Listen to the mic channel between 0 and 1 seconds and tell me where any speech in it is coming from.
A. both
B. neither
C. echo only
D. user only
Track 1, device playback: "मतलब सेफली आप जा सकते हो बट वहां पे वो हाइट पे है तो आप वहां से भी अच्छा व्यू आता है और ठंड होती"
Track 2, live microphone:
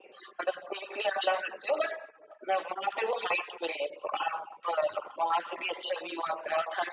C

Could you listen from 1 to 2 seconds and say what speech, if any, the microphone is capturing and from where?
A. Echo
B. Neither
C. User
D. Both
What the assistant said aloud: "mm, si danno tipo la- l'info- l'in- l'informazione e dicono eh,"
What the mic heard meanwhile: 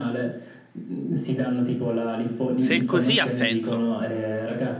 A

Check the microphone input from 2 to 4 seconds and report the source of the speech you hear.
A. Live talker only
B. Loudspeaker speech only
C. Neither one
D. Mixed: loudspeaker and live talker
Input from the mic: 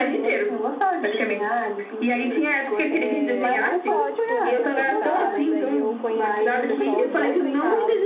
D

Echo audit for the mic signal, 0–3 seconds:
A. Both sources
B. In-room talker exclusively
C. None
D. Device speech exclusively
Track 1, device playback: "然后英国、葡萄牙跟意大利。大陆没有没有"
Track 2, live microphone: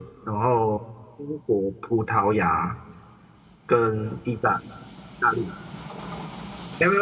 D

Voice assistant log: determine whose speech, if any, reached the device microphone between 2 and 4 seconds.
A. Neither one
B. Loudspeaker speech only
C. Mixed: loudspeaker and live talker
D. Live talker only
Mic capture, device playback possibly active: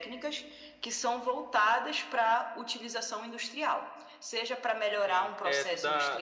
B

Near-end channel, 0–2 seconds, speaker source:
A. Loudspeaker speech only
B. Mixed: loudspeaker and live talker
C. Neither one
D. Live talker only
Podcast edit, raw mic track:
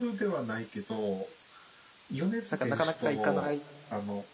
A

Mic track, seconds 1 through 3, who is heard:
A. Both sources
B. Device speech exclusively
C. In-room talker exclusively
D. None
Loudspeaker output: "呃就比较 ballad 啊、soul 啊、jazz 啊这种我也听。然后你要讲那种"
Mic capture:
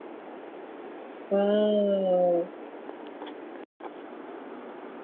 C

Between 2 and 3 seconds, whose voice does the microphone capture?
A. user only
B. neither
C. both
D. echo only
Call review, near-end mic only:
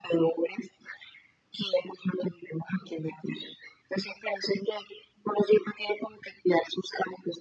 D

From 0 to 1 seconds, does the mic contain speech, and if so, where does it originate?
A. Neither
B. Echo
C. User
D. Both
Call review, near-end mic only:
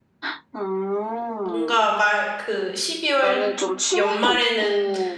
B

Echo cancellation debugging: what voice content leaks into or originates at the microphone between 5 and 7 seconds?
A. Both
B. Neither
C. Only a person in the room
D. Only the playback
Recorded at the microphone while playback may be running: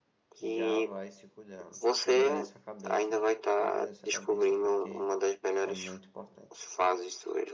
A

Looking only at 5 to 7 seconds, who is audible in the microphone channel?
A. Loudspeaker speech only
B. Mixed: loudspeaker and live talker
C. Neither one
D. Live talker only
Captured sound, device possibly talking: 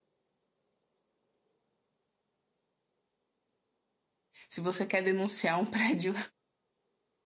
D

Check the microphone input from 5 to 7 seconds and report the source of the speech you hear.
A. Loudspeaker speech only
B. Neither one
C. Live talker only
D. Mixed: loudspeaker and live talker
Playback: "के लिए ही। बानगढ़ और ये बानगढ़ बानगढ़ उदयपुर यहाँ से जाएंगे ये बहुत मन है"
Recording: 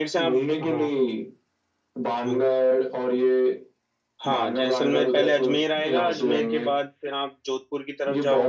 D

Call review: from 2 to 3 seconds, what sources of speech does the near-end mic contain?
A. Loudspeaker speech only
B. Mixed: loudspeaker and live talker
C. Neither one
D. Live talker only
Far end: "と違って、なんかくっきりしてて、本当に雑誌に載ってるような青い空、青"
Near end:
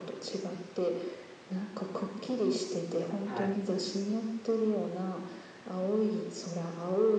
A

